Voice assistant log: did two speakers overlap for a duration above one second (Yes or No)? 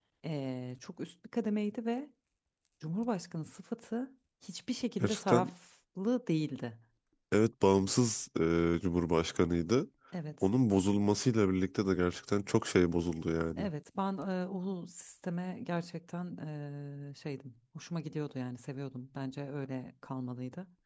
No